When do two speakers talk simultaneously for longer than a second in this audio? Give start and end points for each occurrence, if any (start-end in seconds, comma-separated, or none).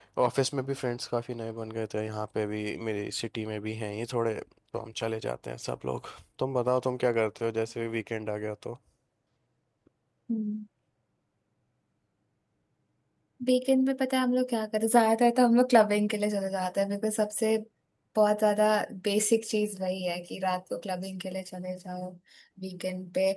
none